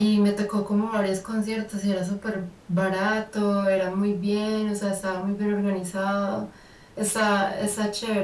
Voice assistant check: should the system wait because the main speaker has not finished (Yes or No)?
Yes